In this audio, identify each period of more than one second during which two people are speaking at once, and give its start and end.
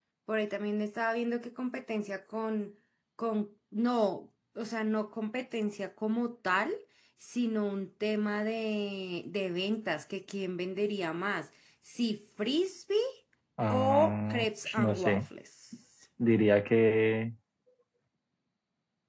13.7-15.3

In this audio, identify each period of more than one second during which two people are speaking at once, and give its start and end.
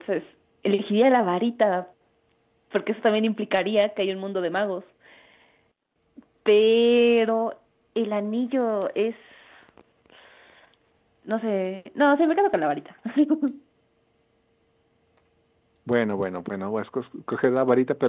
none

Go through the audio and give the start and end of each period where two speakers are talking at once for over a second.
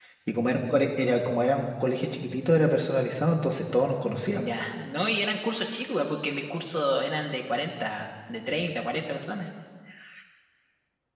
none

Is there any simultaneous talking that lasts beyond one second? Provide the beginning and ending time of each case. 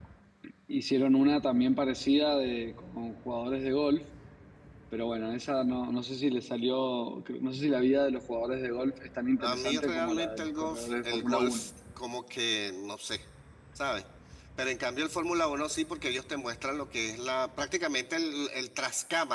9.4-11.7

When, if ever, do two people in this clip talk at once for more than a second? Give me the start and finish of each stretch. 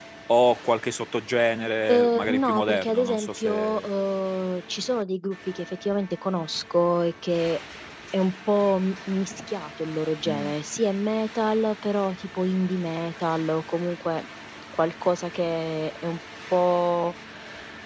1.9-3.9

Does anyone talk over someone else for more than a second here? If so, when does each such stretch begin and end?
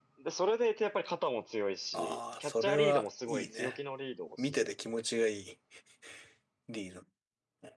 1.9-3.8

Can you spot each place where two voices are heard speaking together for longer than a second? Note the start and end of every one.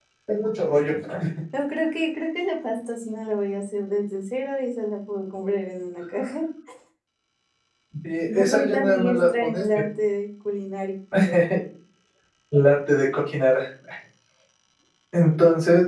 8.2-9.6

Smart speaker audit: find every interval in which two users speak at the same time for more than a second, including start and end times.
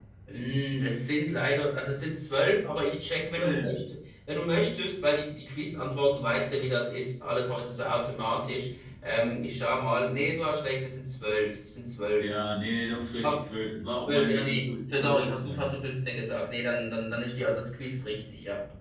14.1-15.6

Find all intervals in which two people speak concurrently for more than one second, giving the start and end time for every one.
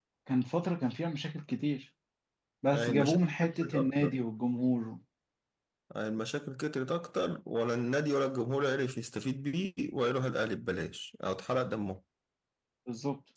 2.7-4.2

